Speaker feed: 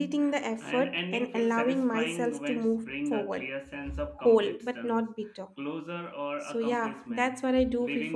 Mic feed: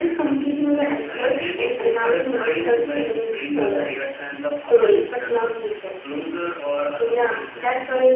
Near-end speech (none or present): none